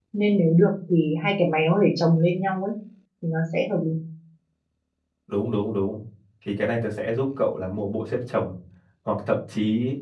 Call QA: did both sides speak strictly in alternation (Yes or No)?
Yes